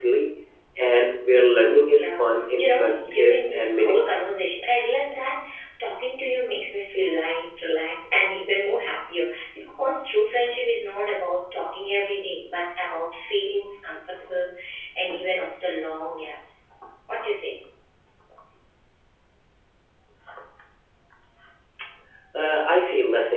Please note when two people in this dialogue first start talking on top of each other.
1.8 s

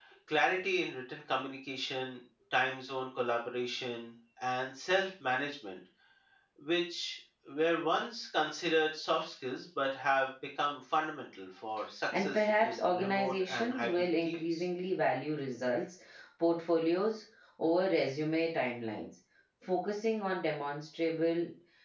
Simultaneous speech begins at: 12.1 s

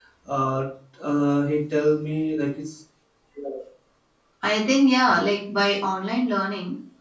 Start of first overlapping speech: none

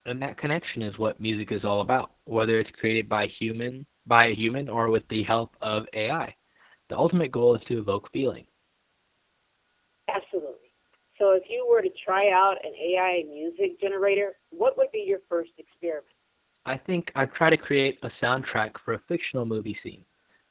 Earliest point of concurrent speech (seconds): none

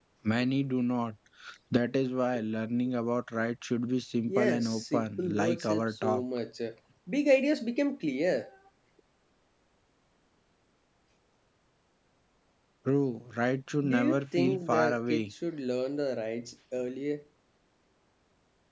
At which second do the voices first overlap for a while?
4.3 s

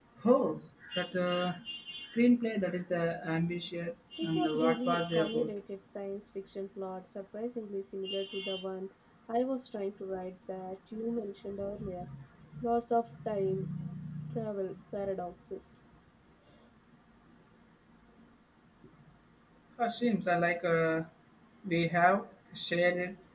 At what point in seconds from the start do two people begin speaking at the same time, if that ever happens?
4.2 s

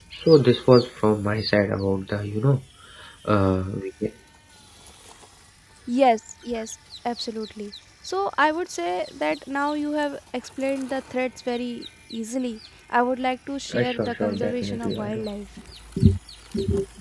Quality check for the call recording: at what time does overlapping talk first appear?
13.7 s

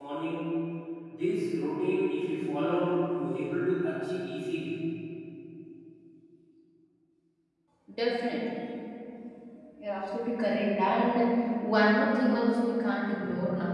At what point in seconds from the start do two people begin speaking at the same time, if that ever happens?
none

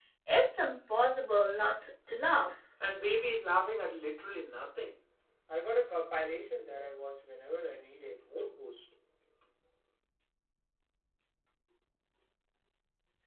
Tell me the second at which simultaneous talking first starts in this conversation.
none

